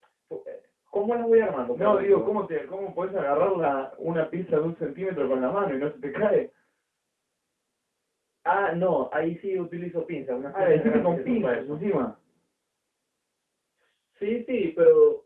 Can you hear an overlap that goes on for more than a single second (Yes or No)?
Yes